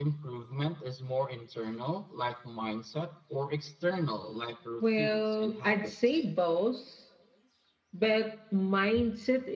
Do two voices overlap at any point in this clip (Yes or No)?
Yes